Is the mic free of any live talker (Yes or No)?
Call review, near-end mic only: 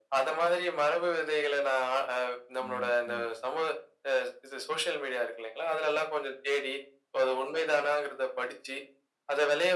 No